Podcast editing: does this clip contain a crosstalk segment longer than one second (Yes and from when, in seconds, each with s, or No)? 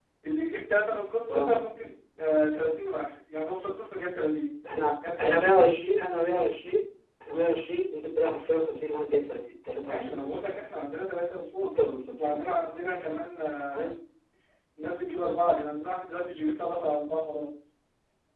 No